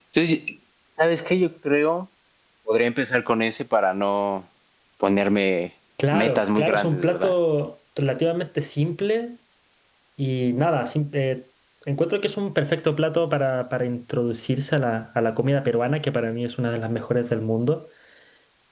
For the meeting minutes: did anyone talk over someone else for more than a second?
Yes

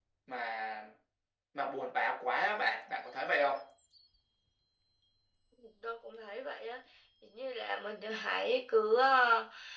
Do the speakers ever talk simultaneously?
No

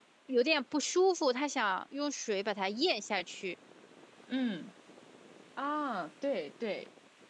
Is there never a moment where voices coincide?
Yes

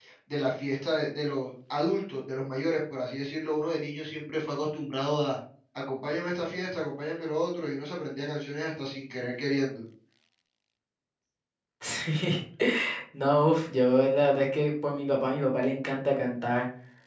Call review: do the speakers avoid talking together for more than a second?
Yes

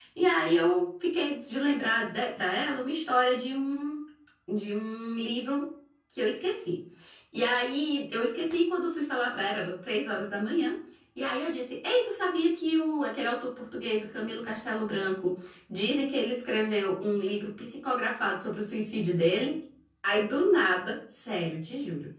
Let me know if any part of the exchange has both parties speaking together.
No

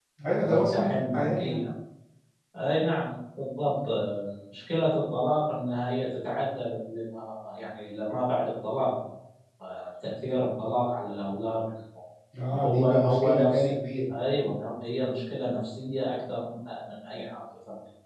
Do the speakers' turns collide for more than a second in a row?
Yes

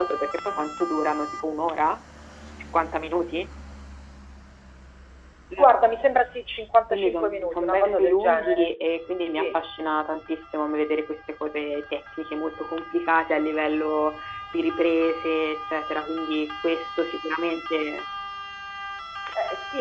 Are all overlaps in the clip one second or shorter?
No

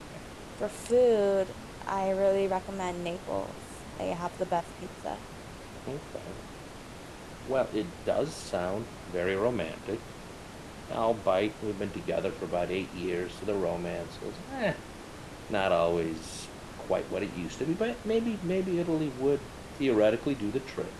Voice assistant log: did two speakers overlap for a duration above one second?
No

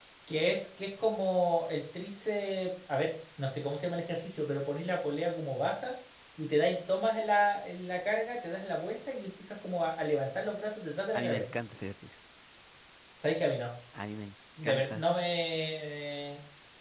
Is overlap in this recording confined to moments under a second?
Yes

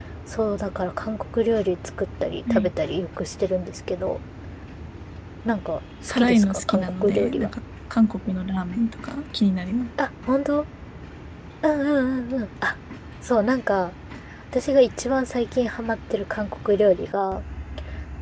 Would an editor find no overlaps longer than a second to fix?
No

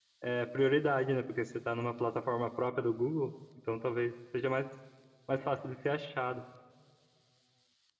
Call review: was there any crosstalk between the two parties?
No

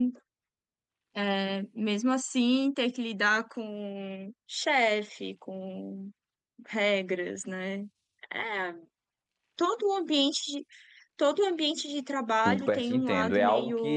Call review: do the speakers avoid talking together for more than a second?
No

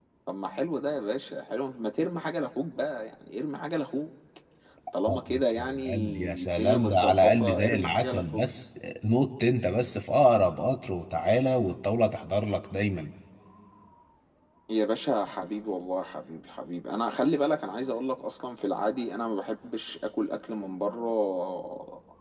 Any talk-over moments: Yes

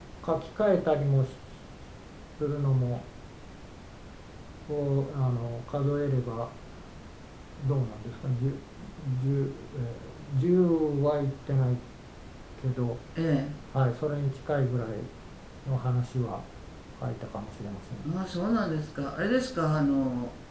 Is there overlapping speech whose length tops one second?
No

